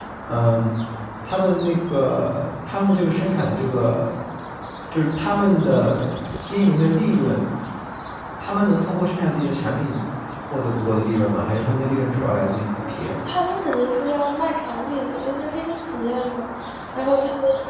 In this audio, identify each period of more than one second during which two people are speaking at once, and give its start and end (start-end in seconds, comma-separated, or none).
none